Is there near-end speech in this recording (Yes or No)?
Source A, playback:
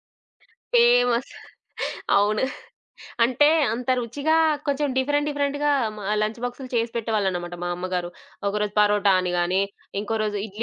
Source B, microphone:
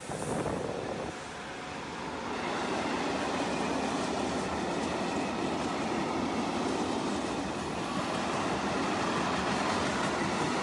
No